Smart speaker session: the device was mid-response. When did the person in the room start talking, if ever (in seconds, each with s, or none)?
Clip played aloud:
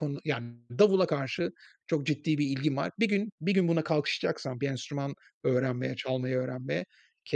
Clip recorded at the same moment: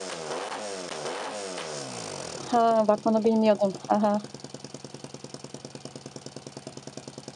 2.4 s